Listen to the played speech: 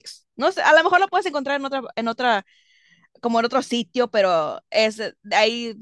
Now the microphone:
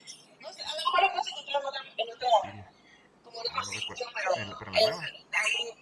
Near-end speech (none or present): present